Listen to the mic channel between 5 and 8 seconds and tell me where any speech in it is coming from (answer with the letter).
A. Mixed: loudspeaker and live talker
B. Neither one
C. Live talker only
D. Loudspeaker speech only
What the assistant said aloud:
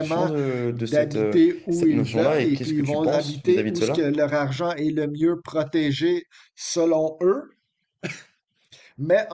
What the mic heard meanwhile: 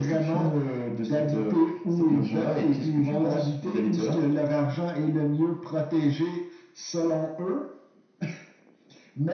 D